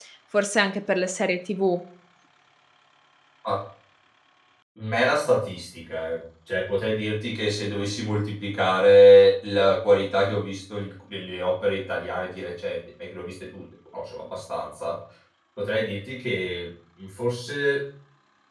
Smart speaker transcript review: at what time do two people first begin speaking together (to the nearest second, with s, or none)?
none